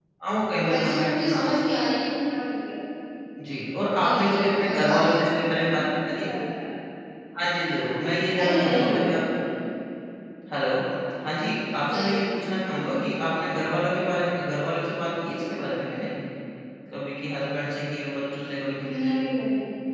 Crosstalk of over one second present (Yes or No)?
Yes